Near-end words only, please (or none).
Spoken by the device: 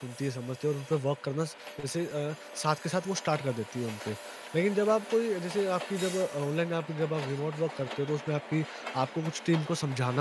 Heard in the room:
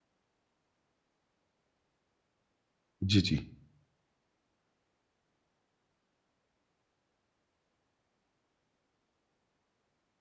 जी जी